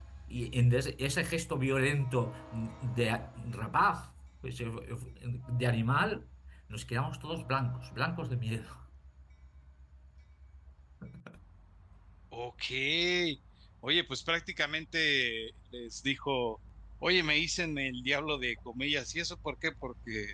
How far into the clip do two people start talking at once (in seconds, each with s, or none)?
none